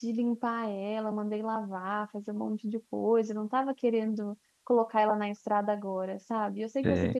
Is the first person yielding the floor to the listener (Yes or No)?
No